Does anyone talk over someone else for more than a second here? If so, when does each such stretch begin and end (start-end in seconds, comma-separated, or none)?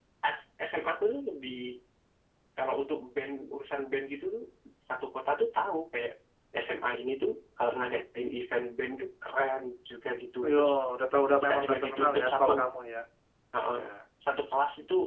11.4-12.7